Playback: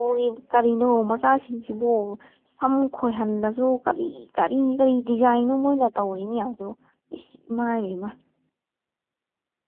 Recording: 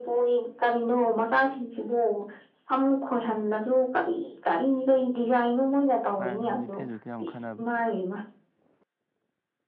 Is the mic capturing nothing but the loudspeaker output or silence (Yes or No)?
No